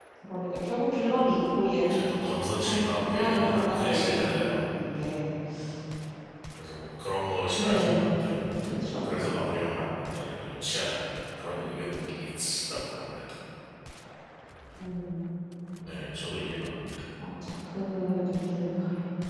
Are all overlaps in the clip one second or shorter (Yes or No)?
No